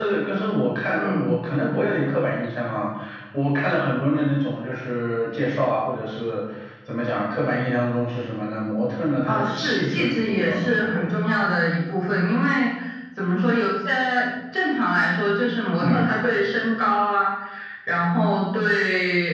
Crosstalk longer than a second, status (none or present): present